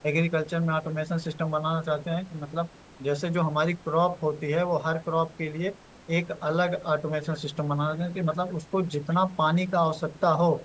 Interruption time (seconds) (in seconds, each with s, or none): none